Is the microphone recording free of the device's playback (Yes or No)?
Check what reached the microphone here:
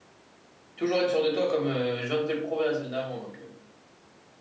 Yes